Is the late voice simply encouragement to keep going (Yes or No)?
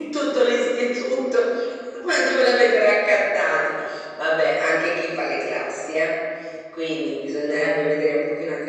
Yes